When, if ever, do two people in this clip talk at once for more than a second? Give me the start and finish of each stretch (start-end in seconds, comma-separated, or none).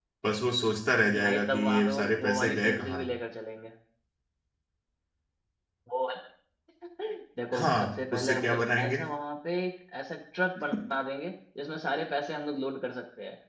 1.2-3.0, 7.5-8.9